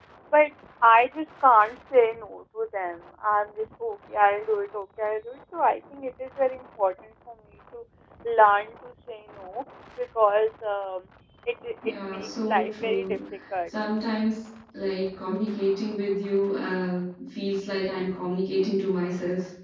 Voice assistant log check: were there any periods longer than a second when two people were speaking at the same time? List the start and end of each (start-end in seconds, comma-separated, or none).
11.8-13.2